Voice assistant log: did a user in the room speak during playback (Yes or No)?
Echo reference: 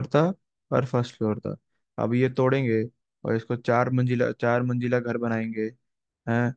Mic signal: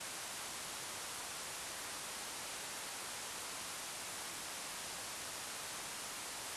No